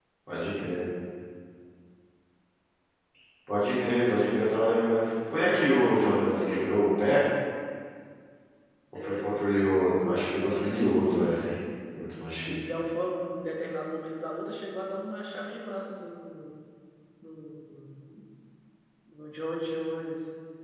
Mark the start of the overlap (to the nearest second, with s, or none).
5 s